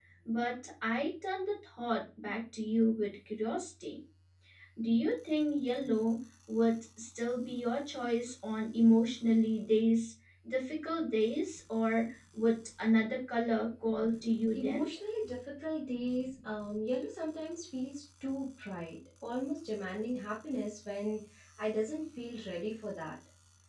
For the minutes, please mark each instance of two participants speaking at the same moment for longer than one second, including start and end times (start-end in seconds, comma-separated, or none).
none